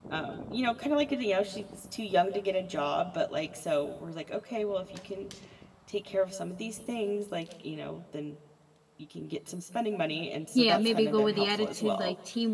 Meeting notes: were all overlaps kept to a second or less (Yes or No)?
No